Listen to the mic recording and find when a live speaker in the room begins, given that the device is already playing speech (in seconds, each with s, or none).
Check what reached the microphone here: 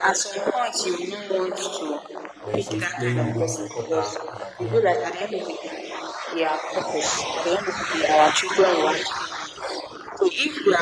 2.4 s